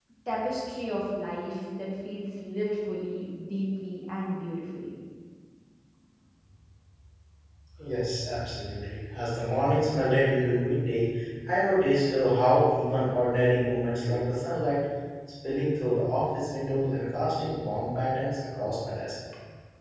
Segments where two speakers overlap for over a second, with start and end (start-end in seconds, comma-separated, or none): none